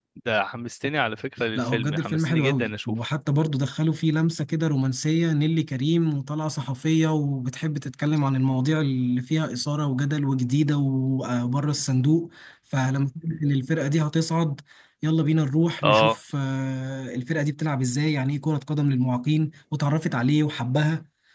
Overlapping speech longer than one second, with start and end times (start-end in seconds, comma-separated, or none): 1.6-3.0